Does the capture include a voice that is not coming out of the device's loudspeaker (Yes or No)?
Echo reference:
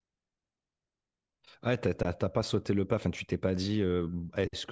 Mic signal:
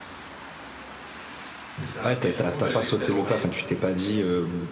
Yes